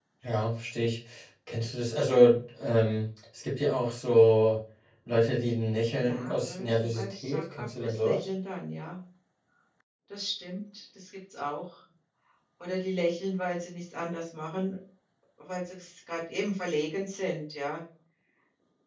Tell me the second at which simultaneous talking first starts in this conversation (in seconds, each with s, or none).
6.0 s